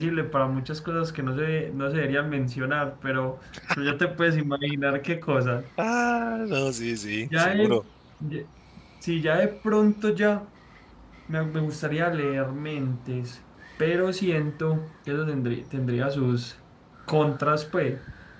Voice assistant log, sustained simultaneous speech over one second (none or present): none